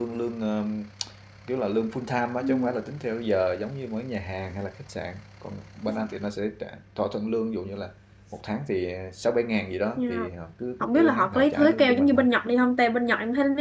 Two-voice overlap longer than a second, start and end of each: 10.8-12.2

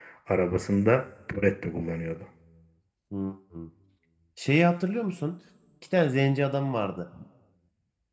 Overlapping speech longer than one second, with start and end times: none

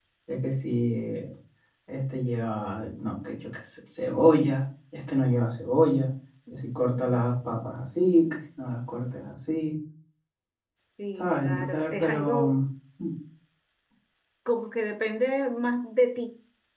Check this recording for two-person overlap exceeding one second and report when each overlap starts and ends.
11.2-12.6

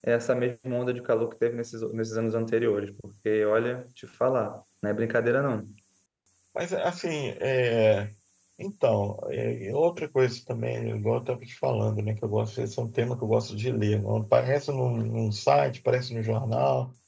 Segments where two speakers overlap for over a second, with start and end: none

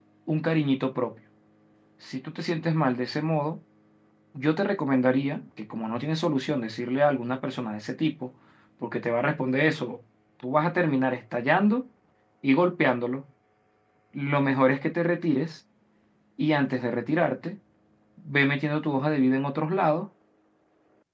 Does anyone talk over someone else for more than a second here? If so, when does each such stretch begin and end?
none

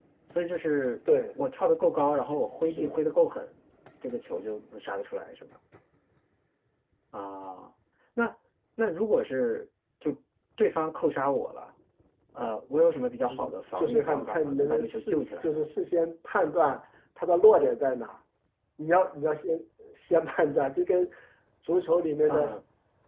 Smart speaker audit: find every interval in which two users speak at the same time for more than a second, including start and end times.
13.8-15.6

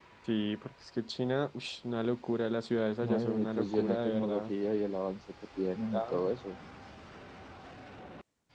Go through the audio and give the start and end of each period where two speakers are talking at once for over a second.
3.0-4.5

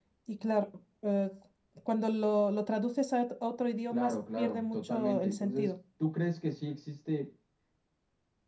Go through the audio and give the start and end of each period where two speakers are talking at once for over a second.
3.9-5.7

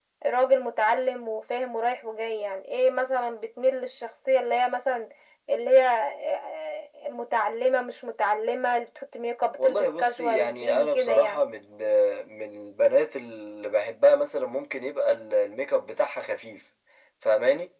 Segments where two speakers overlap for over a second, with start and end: 9.6-11.4

